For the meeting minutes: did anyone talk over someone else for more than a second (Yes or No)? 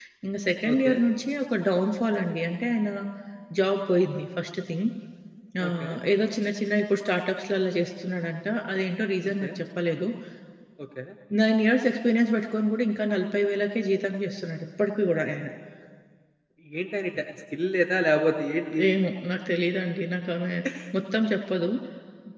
No